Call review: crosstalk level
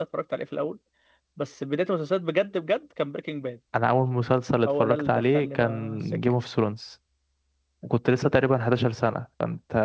present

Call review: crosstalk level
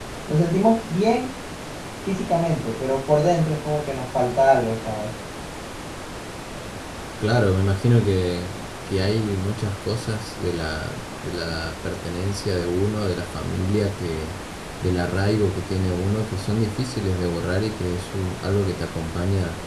none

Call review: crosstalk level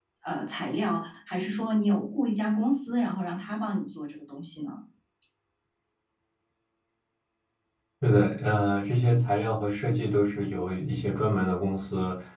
none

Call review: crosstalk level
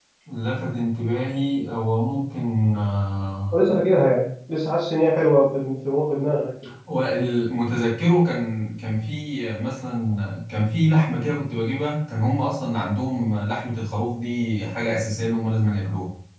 none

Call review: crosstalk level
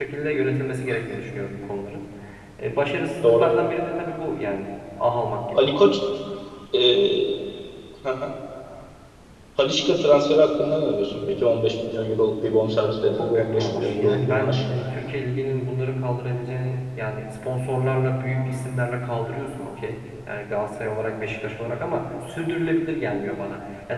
present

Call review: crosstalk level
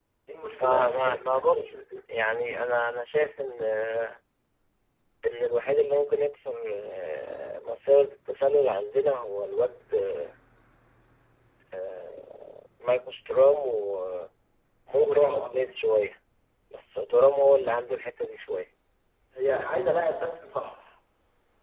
present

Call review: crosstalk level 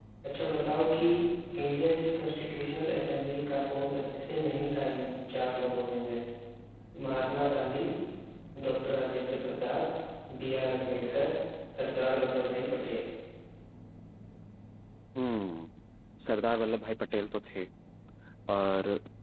none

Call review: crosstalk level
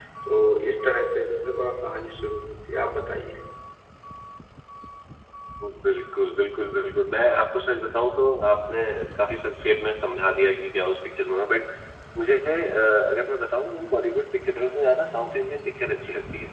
none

